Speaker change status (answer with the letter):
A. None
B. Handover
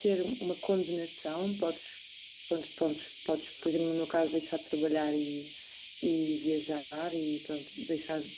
A